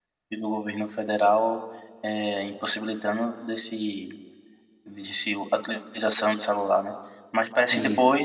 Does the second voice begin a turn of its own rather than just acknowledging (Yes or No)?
No